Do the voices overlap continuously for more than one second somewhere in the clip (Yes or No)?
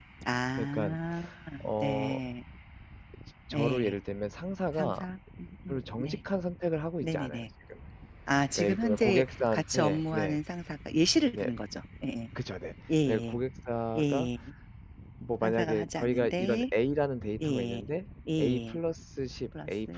Yes